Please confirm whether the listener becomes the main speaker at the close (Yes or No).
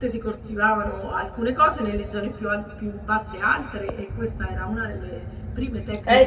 Yes